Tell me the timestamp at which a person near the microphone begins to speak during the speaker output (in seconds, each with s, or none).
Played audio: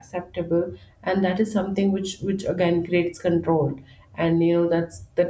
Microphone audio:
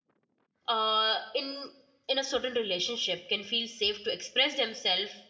0.7 s